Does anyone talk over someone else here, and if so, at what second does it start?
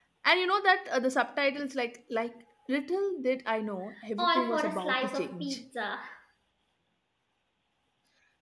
4 s

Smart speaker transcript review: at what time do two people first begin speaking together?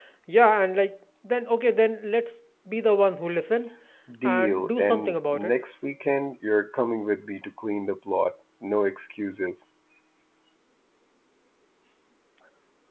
4 s

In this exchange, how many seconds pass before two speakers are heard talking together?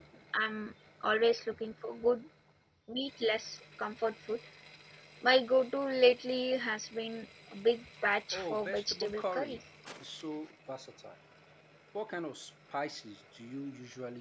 8 s

